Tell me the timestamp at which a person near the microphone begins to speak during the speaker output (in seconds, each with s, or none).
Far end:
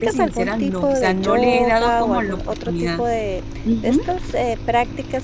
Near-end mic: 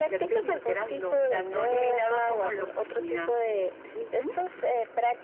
none